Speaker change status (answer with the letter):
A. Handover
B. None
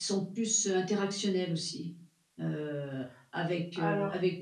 B